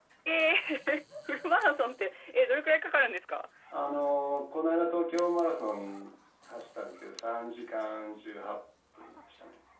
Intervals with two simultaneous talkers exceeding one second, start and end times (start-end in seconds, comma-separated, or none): none